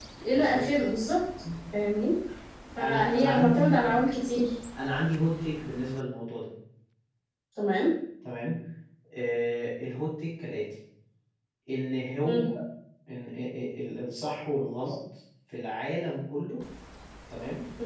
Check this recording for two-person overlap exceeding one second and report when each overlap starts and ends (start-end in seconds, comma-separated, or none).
2.8-4.1